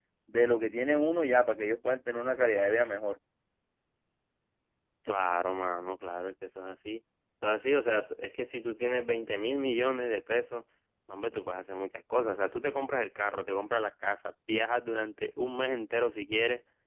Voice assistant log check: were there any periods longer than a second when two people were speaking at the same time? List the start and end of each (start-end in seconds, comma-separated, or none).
none